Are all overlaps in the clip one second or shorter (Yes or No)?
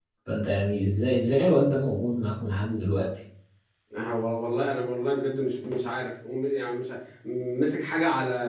Yes